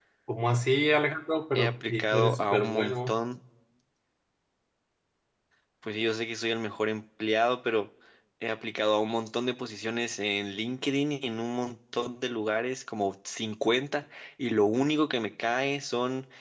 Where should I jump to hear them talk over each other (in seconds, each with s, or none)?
1.6 s